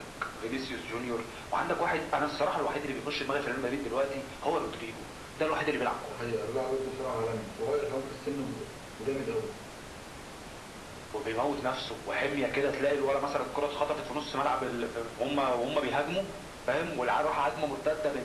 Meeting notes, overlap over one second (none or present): none